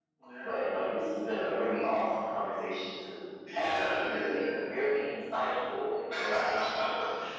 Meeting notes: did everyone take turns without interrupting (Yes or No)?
No